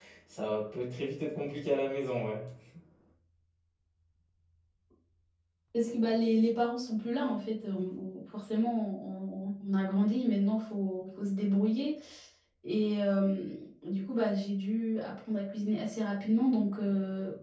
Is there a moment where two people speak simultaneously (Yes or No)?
No